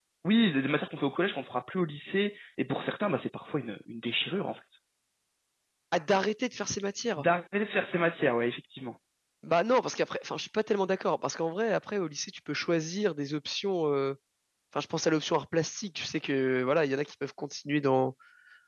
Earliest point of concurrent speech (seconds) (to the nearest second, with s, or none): none